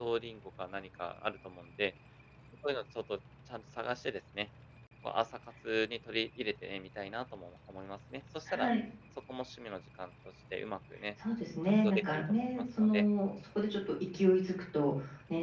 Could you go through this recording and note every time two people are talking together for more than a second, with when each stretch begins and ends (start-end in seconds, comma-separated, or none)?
11.8-13.1